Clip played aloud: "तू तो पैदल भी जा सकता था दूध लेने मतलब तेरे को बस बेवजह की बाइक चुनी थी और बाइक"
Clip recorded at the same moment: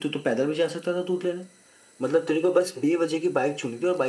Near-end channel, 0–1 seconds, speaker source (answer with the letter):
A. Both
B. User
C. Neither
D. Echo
D